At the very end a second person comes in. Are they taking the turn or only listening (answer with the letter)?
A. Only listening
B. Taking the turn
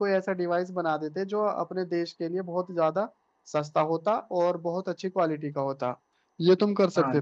B